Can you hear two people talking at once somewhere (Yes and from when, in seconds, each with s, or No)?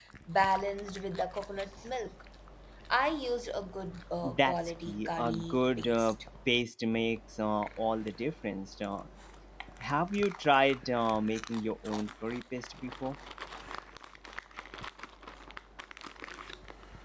Yes, from 4.2 s